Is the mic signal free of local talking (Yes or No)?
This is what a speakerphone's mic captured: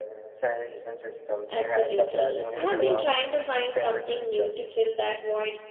No